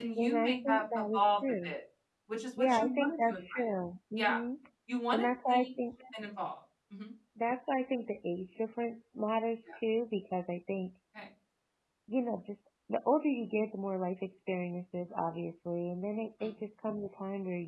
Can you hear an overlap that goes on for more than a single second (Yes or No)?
Yes